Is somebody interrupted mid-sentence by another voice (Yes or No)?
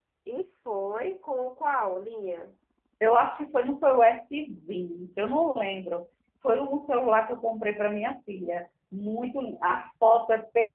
No